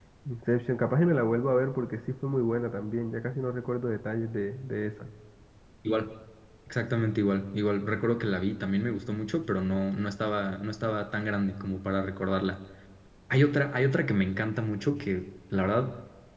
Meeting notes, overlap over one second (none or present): none